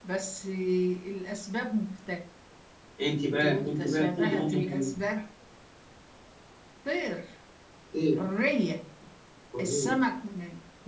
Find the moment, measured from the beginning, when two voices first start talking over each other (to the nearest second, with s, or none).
3 s